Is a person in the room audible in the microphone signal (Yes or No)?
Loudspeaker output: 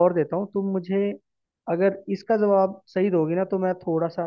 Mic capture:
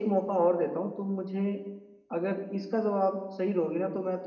No